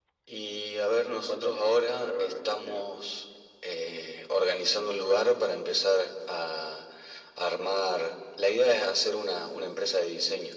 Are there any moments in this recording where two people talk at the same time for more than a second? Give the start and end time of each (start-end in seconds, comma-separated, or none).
1.3-2.8